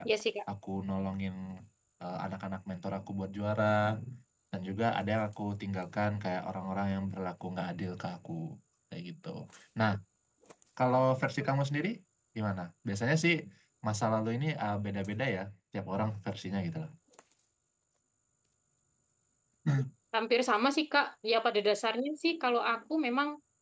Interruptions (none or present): none